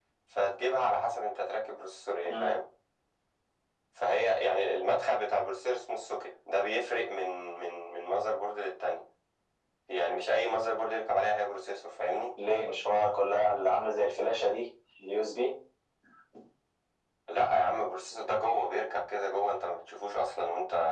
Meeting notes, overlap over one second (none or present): none